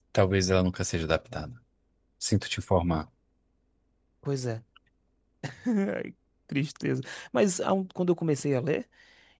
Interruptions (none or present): none